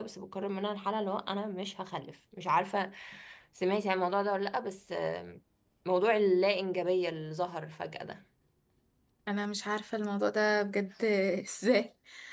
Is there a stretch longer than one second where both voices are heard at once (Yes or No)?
No